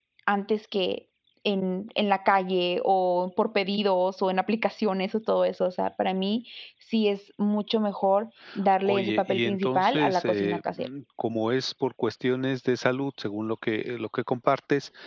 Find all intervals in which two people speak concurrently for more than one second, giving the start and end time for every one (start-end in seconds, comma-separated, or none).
8.9-10.9